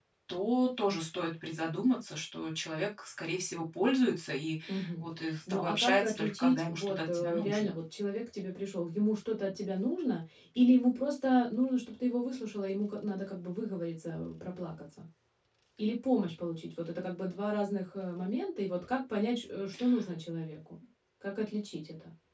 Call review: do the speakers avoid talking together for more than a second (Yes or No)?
No